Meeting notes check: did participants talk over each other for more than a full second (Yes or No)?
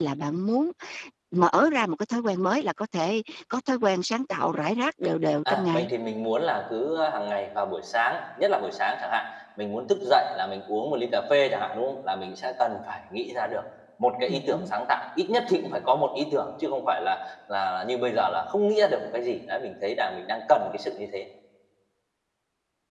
No